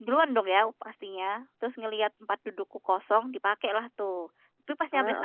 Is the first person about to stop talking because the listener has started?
No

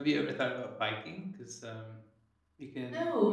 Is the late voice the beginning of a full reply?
Yes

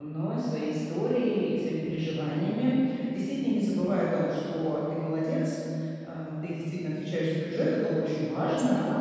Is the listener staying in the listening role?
Yes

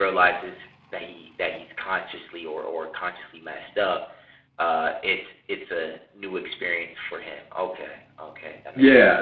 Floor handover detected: Yes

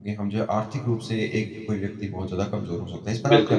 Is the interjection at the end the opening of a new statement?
Yes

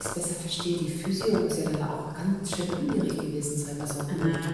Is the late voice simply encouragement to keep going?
No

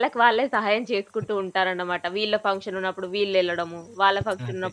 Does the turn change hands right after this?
No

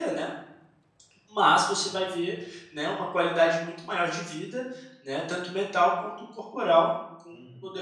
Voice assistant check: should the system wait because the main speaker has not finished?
No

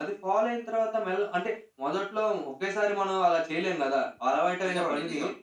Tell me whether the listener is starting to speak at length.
No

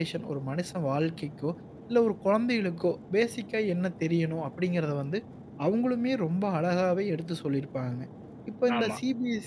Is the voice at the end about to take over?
No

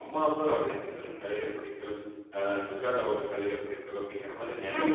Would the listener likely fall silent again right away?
No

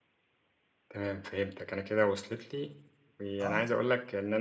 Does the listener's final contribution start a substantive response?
No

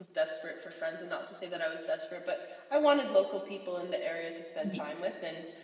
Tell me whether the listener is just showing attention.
Yes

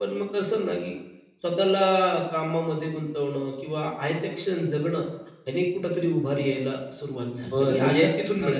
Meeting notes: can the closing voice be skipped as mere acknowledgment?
No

